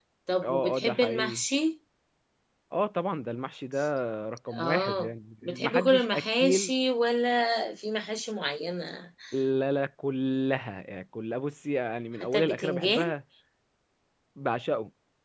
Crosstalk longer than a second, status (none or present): present